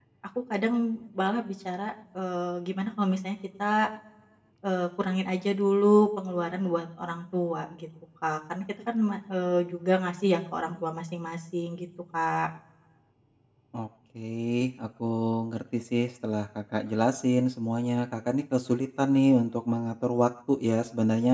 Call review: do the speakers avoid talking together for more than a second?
Yes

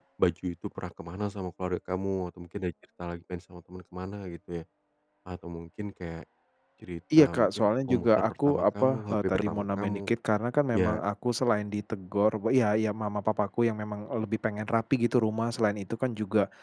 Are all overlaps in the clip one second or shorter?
No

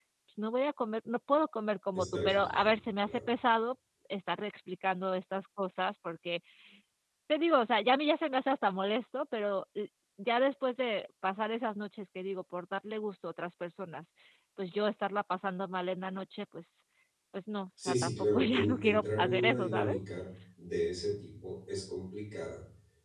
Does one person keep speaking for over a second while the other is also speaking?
Yes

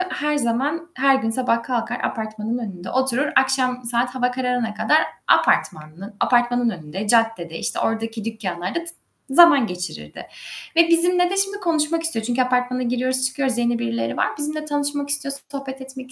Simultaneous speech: No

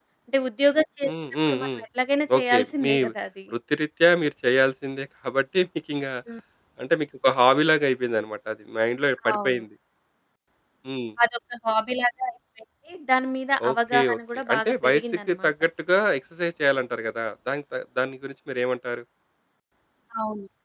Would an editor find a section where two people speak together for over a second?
Yes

